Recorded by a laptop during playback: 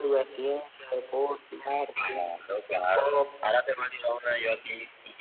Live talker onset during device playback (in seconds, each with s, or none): none